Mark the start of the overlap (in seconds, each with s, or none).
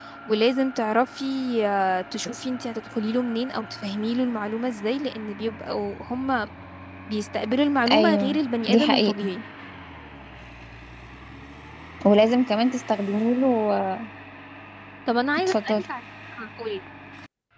7.9 s